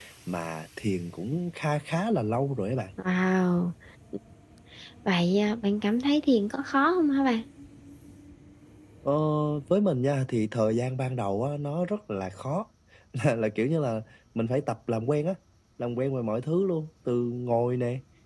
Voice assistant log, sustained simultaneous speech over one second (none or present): none